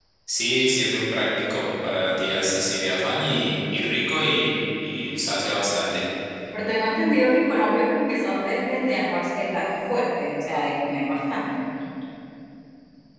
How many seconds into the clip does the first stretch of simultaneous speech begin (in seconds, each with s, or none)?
none